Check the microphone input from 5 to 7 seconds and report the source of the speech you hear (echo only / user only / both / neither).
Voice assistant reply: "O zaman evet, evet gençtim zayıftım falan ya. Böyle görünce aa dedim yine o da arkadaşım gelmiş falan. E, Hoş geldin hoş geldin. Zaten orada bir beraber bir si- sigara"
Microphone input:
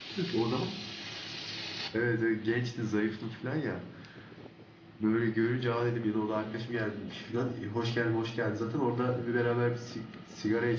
echo only